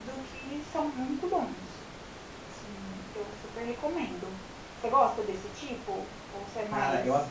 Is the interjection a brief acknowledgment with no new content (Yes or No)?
No